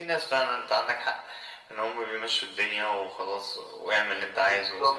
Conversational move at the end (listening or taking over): taking over